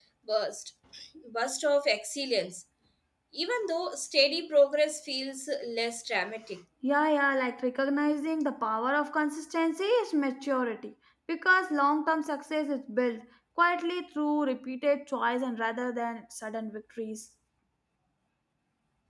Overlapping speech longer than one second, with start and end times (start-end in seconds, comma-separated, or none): none